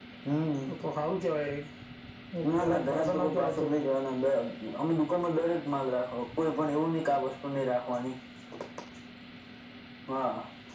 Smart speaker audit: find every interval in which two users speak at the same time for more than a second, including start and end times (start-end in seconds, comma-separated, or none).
2.5-3.9